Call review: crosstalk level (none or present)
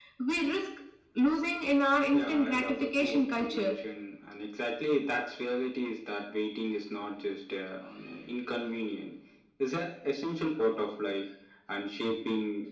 present